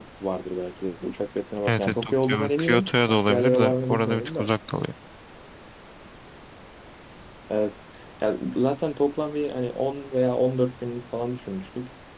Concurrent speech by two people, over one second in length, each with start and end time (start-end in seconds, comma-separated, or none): 1.7-4.5